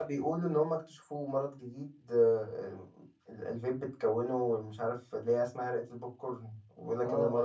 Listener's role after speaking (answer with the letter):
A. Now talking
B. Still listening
A